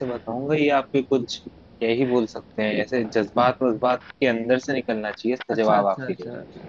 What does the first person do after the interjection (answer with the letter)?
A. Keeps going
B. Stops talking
B